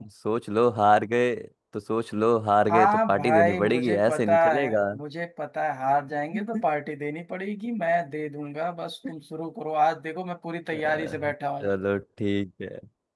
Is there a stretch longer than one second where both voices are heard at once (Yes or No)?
Yes